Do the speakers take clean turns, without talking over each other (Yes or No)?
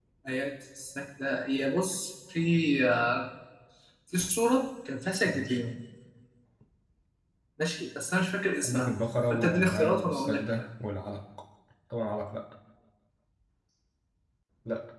No